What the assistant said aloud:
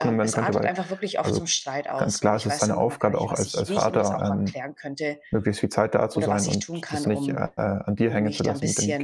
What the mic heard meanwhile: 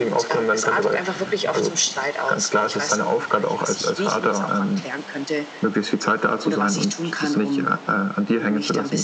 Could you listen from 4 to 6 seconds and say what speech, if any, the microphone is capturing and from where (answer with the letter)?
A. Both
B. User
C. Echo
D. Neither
C